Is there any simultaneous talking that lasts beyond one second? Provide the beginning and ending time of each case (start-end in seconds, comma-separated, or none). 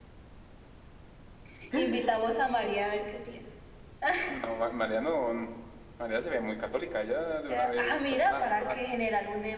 7.5-8.8